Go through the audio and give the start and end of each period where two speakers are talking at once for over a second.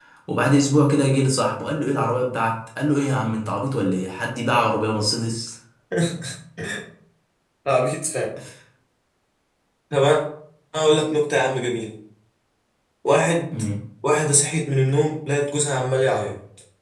none

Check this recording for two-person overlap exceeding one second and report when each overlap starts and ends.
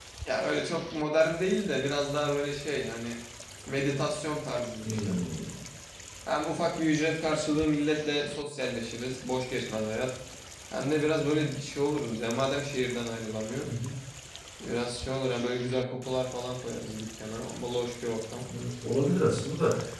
none

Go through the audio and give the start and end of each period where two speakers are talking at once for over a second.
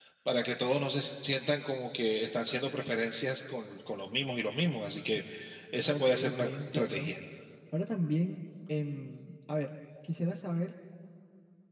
5.9-7.1

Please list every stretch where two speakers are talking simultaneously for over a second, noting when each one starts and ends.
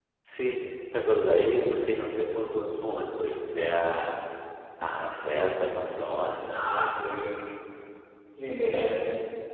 none

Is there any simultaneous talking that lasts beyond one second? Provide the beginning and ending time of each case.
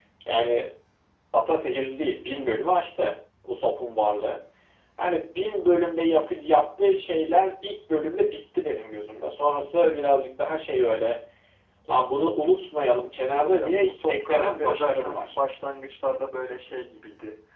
13.4-15.3

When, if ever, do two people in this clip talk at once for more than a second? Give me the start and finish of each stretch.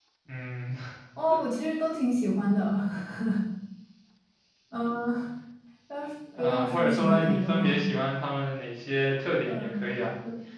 6.4-7.8

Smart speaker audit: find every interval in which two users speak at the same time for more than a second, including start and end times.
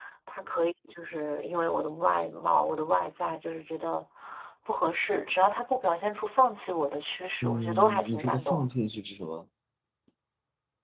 7.4-8.7

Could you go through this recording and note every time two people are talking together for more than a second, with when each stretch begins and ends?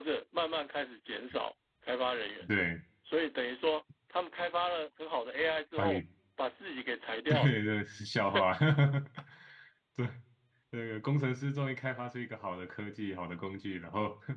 none

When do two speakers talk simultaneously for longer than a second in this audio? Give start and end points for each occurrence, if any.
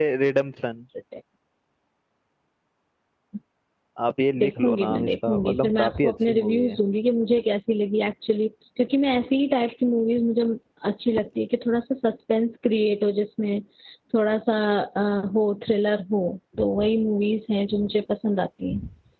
4.4-6.8

